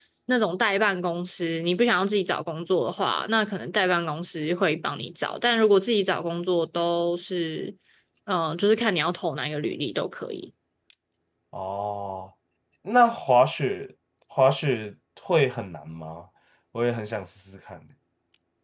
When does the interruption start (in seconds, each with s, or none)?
none